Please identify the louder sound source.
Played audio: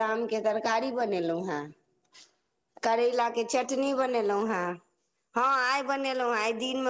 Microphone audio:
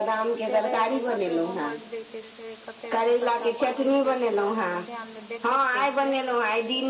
echo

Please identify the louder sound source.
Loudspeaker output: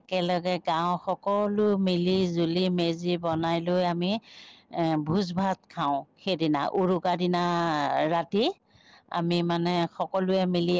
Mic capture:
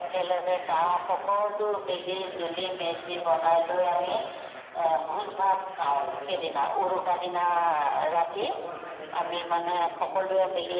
echo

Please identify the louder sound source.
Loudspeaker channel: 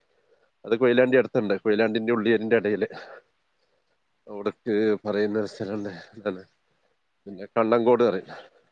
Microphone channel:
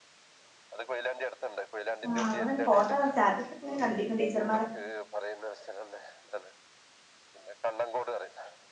user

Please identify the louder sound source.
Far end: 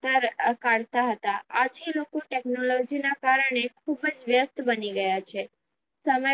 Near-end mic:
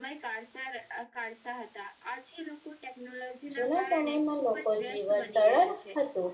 user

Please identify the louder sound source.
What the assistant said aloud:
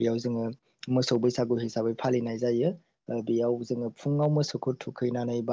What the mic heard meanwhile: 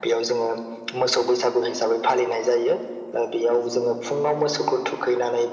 echo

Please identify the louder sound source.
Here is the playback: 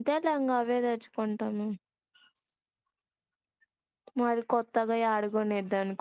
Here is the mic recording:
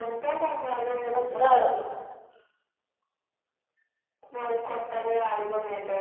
user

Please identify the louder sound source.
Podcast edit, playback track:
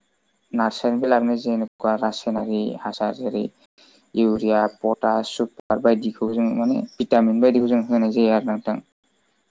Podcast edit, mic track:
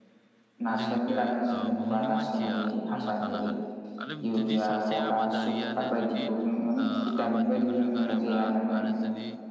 echo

